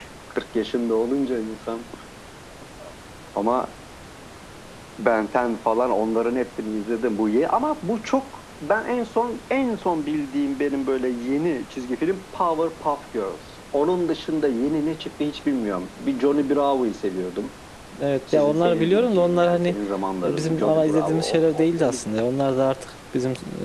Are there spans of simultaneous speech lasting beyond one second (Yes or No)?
Yes